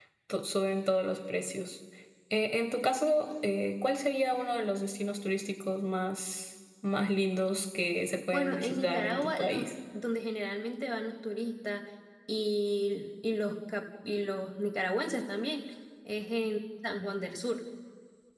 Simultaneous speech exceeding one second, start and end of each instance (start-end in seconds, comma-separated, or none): 8.3-9.7